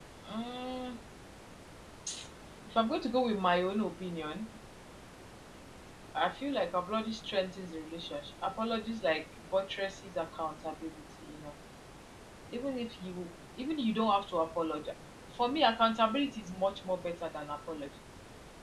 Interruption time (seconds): none

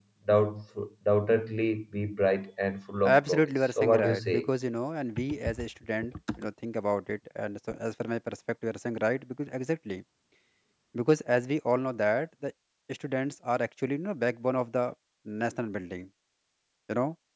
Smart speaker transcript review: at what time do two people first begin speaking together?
3 s

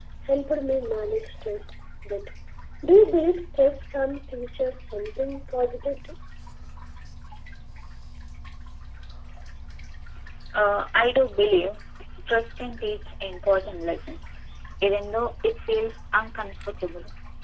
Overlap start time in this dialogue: none

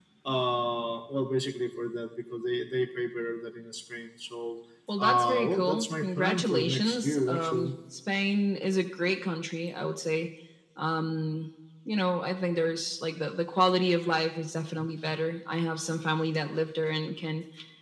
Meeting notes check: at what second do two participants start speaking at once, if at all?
5 s

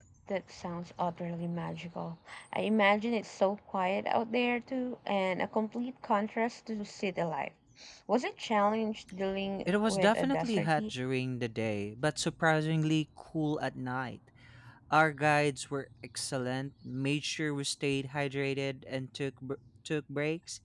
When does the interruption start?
10 s

